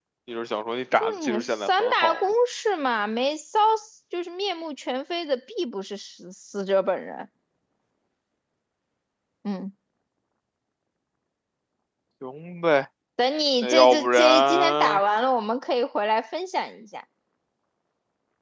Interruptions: present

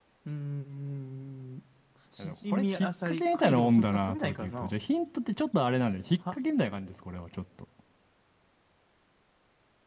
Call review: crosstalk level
present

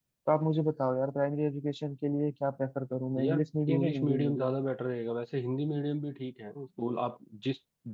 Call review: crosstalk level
present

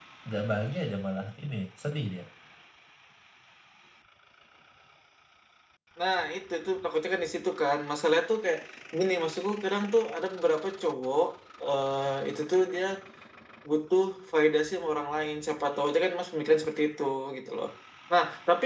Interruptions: none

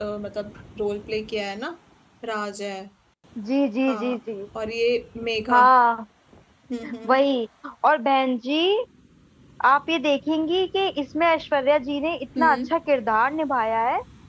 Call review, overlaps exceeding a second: none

